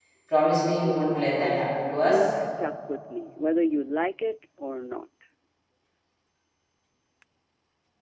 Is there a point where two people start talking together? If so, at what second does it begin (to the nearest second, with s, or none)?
1 s